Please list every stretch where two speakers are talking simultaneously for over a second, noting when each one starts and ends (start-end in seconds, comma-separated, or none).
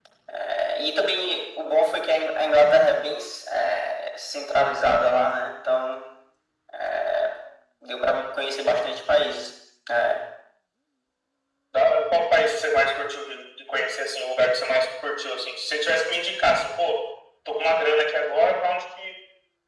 none